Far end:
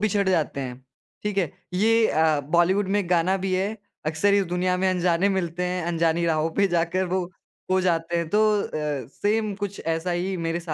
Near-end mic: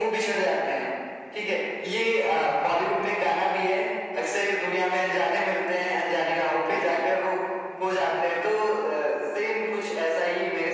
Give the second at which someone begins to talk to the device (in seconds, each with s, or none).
none